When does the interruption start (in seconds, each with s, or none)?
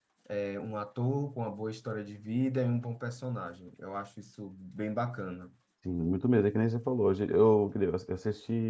none